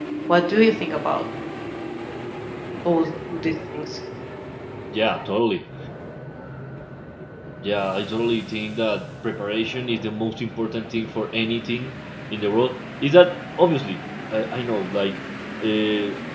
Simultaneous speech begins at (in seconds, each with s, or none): none